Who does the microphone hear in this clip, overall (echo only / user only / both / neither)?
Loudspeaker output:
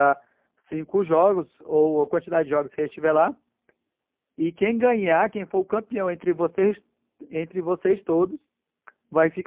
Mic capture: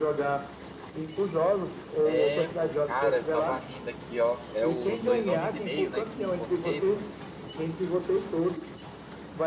both